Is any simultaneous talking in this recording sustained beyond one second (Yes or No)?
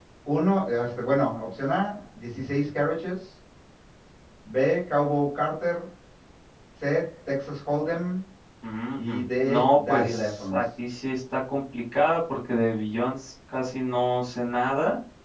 Yes